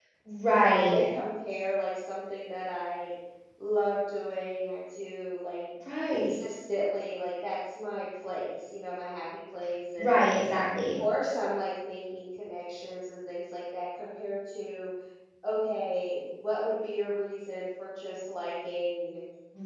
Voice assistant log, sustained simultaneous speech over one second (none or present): none